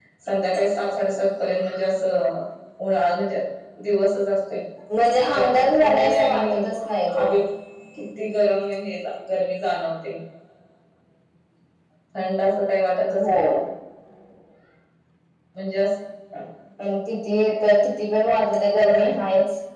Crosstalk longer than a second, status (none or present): present